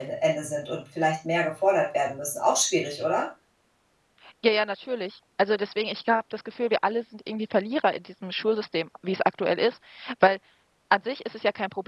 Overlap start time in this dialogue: none

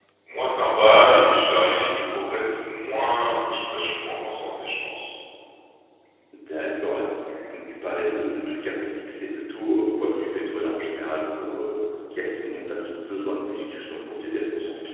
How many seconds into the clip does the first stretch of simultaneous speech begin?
none

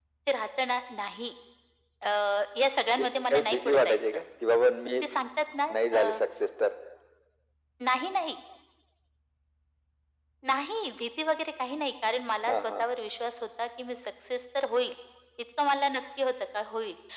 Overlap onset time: 3 s

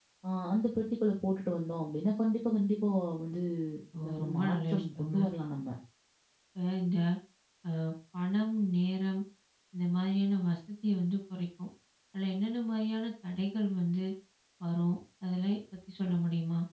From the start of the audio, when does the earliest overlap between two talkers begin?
4 s

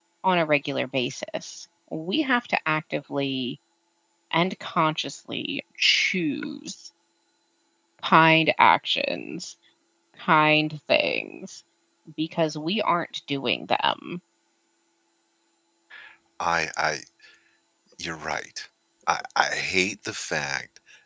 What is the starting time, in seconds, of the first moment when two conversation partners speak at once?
none

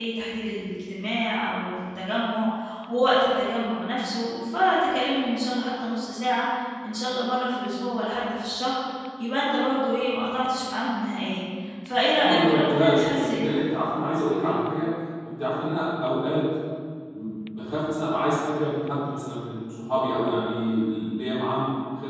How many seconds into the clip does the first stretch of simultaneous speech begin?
12 s

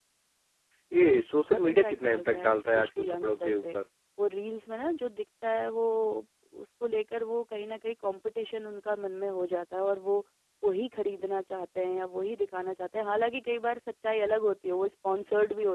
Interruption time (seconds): 1 s

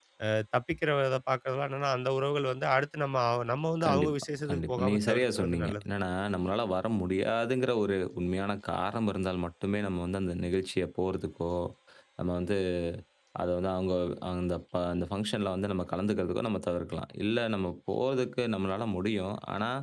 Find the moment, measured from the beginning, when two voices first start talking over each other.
4 s

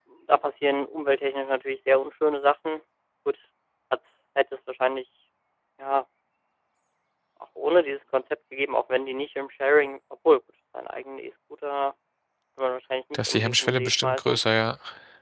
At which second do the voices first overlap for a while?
13 s

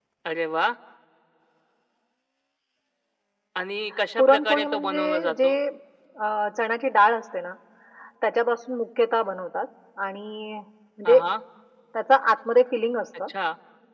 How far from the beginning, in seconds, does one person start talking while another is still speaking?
4 s

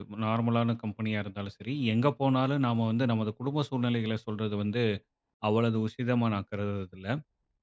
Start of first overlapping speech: none

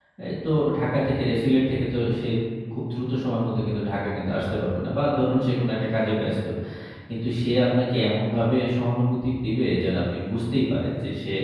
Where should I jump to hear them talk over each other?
none

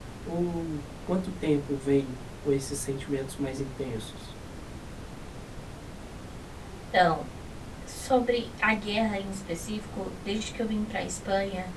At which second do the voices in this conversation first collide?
none

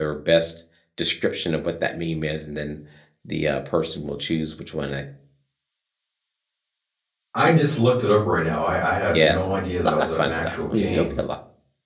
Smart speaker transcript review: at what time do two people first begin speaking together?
9 s

